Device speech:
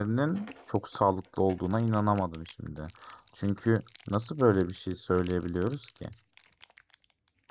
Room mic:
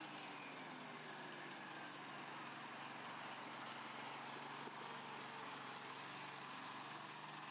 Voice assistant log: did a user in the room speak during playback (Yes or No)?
No